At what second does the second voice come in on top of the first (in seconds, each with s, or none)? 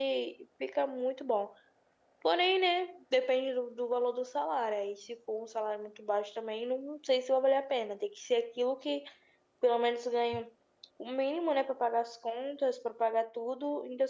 none